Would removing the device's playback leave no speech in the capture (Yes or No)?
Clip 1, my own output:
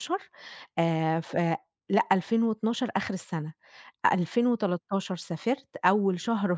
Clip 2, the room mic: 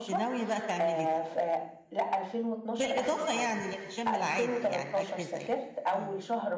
No